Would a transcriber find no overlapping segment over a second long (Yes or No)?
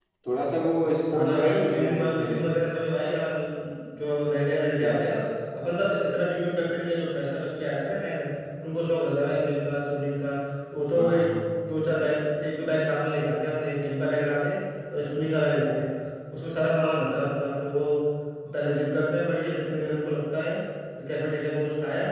No